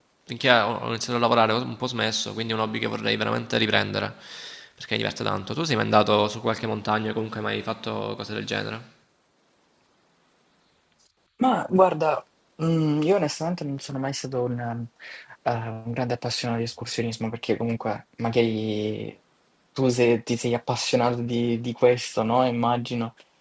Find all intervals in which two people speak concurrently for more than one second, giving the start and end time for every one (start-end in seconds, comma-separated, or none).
none